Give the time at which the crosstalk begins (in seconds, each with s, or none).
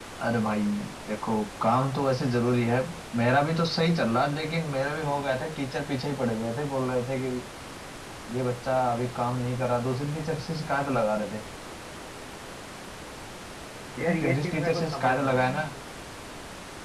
14.1 s